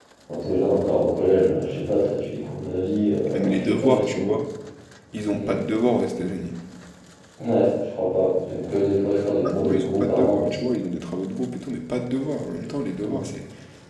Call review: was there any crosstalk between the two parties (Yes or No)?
Yes